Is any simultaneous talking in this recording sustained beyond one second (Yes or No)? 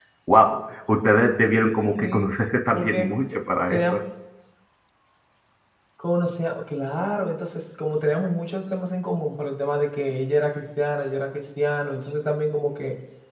No